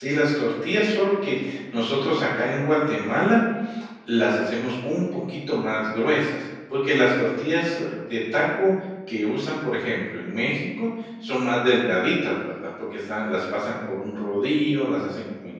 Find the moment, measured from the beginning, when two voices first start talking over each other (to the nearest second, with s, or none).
none